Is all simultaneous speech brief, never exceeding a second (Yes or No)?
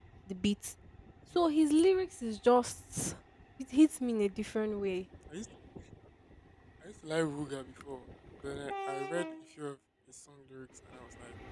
Yes